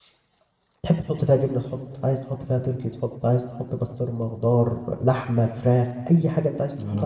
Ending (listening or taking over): taking over